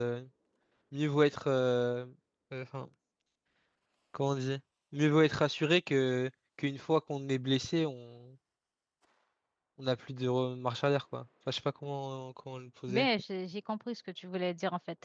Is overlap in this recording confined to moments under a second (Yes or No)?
Yes